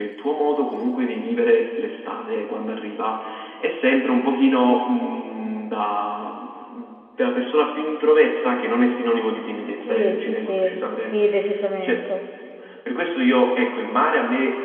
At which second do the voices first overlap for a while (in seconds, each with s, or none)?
9.7 s